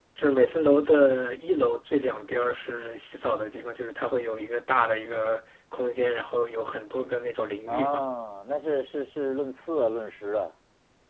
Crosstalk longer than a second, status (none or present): none